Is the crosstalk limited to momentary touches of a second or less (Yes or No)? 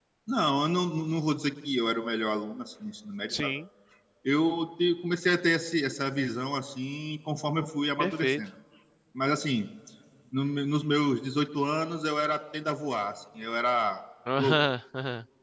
Yes